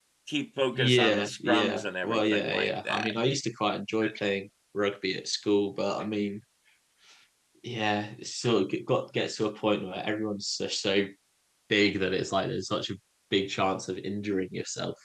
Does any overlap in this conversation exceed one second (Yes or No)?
Yes